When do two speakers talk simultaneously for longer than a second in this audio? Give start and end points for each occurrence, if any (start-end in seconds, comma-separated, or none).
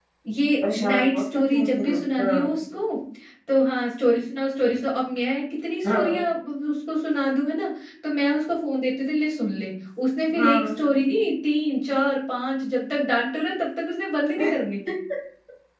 0.6-2.6